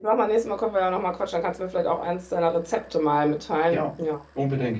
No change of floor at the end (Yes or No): No